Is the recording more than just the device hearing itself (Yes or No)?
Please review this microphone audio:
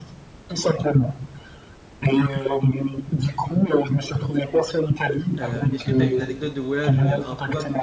Yes